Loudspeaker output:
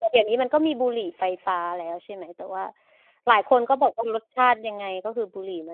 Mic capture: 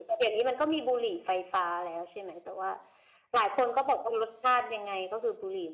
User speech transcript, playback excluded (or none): none